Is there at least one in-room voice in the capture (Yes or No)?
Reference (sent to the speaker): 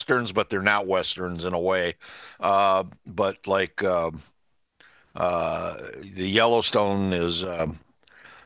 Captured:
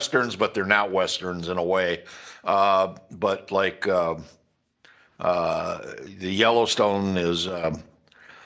No